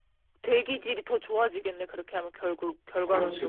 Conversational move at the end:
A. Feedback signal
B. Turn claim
B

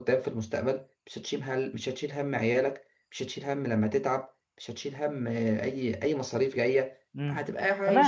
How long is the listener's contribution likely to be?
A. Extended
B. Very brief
A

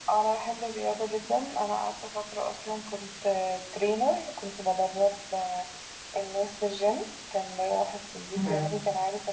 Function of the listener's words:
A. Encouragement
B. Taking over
A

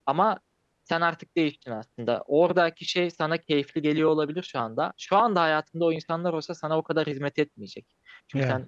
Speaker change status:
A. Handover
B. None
B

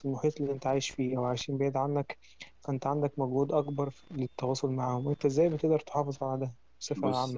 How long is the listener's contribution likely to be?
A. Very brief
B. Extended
B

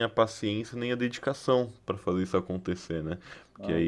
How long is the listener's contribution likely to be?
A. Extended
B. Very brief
B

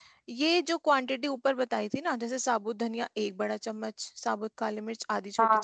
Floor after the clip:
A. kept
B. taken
A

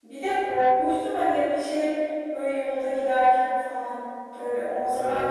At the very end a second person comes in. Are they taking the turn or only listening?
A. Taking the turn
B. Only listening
B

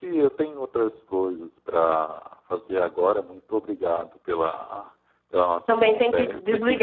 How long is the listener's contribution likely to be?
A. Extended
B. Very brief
A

